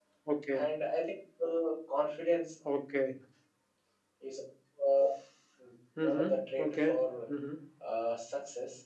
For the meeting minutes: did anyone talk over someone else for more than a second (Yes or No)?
Yes